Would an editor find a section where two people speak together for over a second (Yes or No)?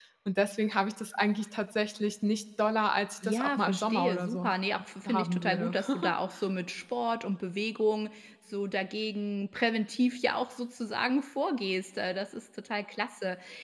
Yes